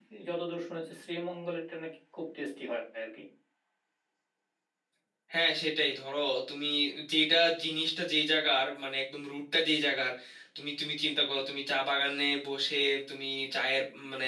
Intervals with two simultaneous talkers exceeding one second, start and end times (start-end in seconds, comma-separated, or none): none